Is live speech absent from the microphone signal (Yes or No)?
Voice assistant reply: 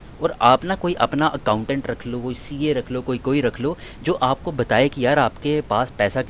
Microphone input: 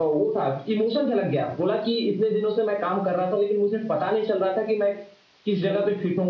No